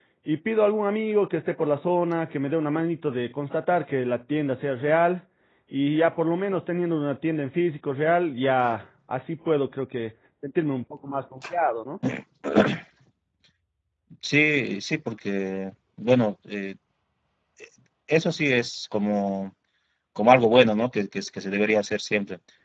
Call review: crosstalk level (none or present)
none